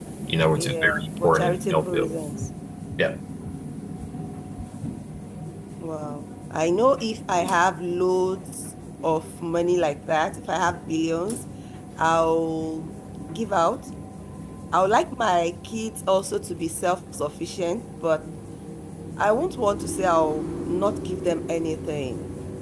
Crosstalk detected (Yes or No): Yes